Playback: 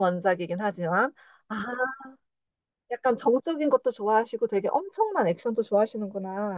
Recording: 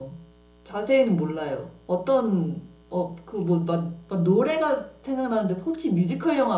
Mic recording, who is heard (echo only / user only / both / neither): user only